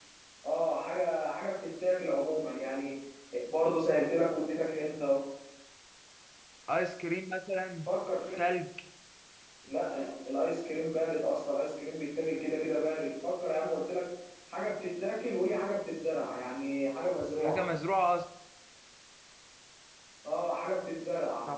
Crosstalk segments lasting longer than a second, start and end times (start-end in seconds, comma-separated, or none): none